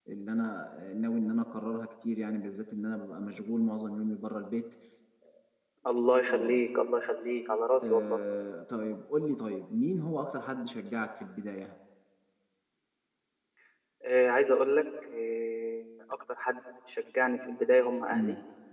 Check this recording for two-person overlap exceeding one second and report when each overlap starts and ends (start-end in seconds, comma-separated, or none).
none